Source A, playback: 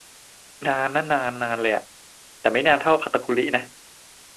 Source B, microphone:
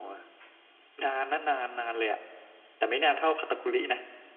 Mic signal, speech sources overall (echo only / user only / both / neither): echo only